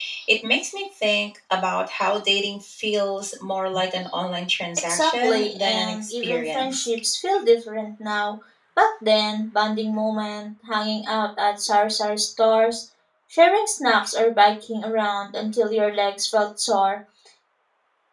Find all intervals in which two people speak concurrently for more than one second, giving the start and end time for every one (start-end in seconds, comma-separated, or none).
4.9-6.9